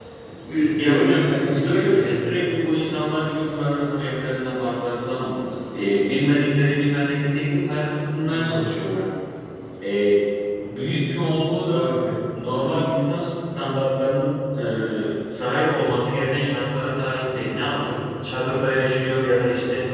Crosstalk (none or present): present